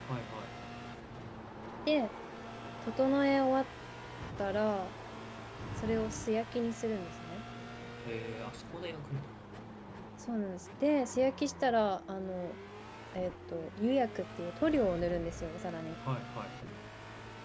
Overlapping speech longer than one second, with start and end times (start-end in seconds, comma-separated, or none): none